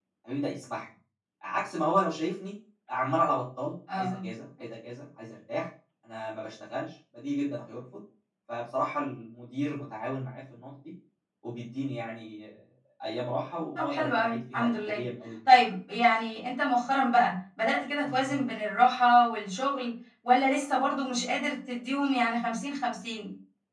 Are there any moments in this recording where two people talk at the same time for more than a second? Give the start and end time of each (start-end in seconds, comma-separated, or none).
13.8-15.0